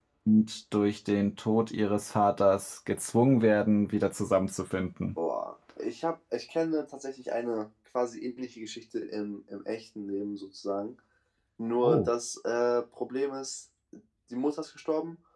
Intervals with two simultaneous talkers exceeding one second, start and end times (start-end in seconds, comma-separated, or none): none